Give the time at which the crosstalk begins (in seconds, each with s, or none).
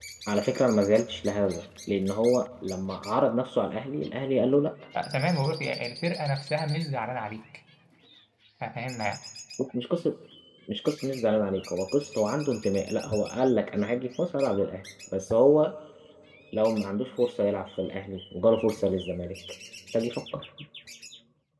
none